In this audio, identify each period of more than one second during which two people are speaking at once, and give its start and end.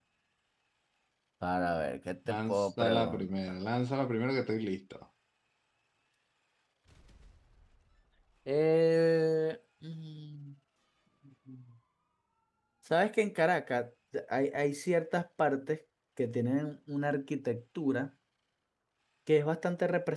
2.3-3.5

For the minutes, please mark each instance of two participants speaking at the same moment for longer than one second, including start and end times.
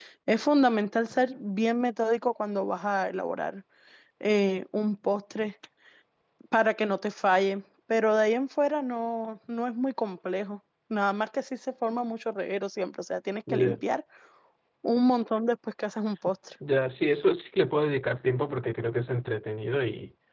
none

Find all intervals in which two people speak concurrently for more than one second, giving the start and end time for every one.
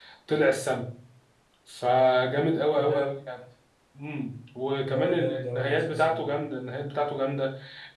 4.8-6.4

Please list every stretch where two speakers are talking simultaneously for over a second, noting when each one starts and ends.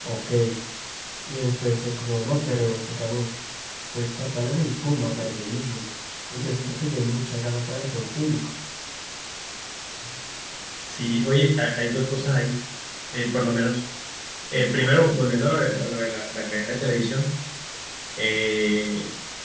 none

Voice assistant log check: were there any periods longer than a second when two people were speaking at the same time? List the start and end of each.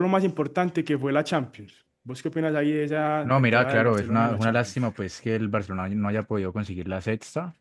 3.2-4.7

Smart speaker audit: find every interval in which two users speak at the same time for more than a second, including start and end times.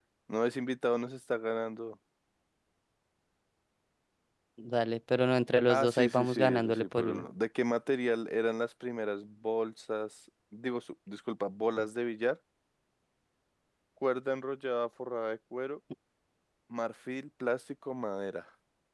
5.7-7.2

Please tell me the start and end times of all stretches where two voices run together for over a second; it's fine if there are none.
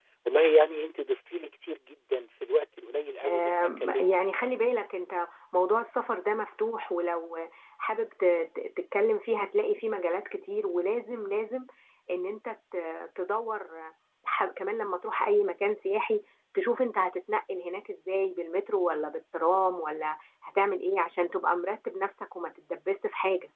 3.2-4.5

